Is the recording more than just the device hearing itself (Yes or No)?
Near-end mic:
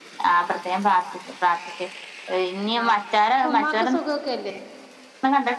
Yes